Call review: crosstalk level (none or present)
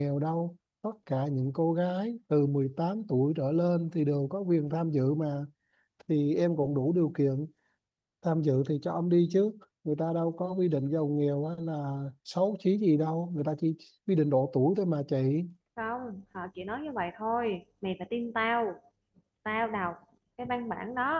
none